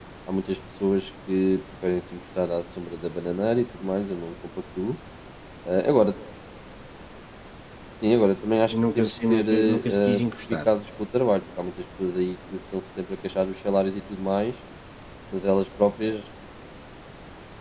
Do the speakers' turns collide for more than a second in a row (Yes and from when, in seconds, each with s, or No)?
Yes, from 8.7 s